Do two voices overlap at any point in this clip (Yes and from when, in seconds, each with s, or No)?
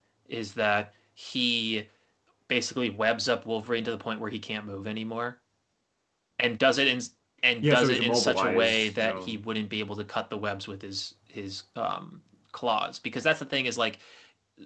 Yes, from 7.6 s